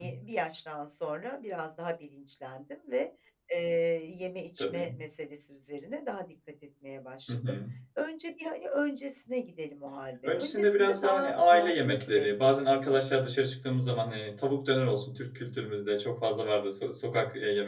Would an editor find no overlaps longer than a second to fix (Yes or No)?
No